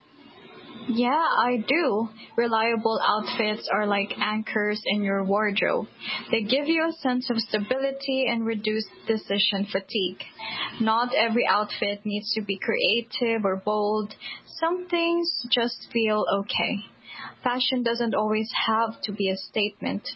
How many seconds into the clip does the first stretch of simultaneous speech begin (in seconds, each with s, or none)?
none